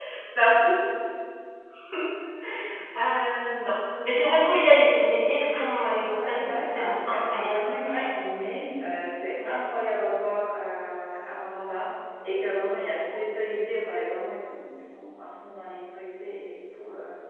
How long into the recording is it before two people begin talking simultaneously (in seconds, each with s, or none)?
6.1 s